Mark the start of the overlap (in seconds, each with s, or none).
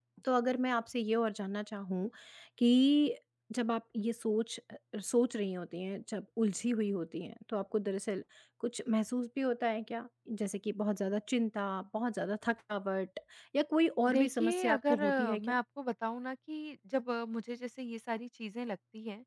14.1 s